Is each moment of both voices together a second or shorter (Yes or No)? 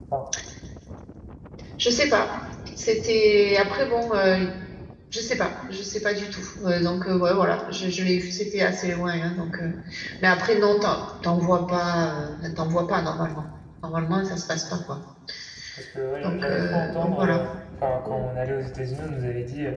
No